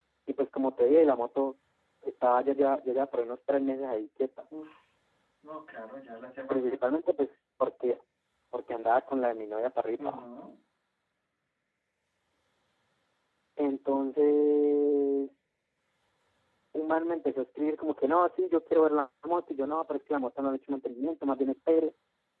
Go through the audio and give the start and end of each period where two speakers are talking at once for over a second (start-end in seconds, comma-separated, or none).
none